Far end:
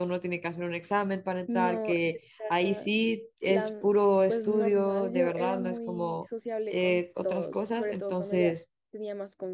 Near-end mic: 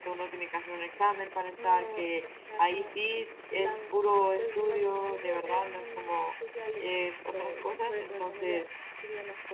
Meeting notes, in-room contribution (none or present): none